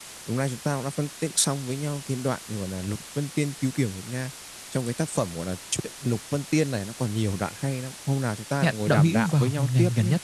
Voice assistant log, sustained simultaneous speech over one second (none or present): present